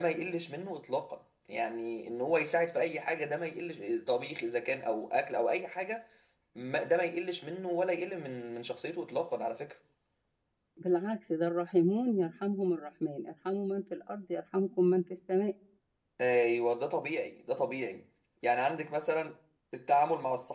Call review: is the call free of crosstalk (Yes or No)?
Yes